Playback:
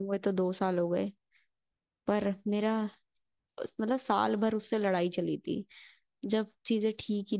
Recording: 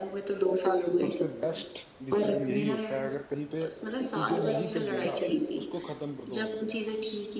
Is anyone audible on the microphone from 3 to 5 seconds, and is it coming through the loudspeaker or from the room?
both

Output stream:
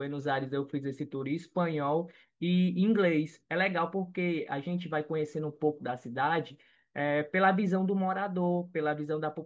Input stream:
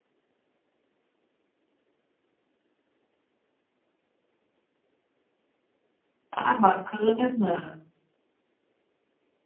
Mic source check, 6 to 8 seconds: user only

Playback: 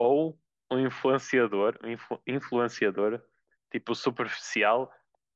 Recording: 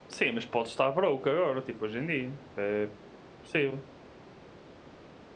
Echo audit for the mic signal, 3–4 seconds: user only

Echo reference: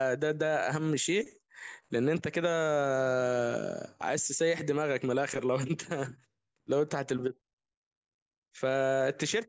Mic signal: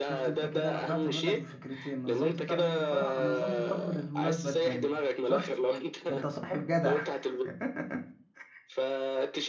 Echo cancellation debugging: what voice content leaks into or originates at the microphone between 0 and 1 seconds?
both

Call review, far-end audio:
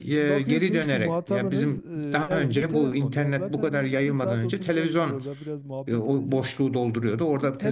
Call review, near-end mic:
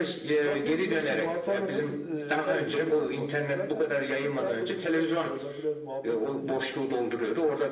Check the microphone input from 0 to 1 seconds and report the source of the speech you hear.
echo only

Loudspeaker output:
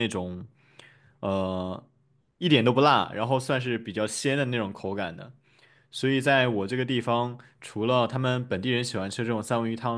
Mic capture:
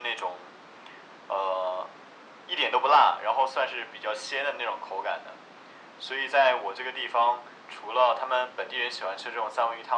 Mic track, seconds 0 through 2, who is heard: echo only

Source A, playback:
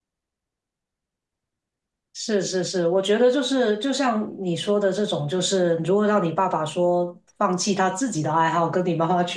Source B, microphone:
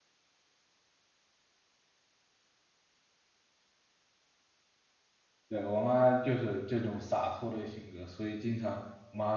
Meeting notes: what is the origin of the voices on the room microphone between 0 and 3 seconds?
neither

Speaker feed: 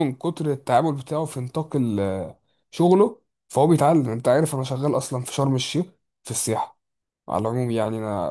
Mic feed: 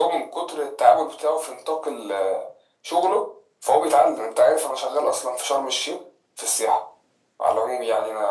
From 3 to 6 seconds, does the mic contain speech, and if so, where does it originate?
echo only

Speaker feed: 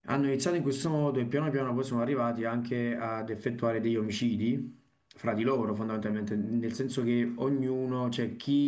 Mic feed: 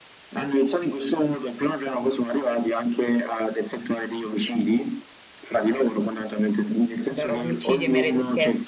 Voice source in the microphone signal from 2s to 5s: echo only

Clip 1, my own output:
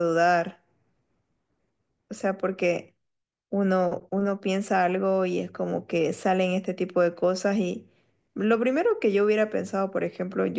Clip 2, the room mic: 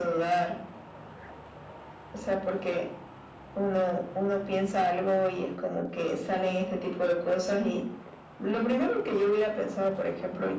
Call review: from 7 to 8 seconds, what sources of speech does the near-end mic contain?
echo only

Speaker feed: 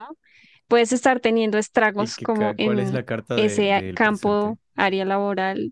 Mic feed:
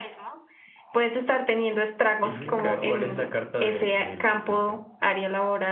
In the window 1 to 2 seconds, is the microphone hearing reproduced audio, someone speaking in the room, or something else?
echo only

